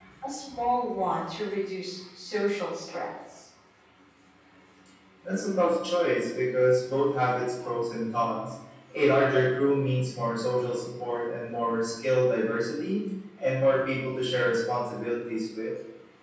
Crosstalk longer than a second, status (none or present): none